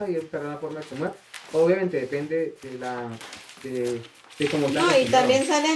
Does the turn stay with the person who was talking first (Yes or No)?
No